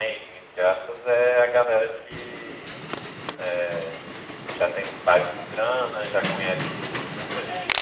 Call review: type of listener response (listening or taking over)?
listening